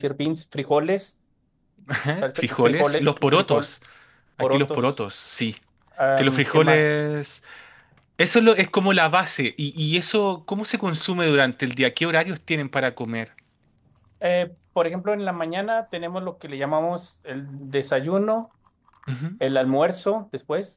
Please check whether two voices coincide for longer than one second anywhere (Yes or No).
Yes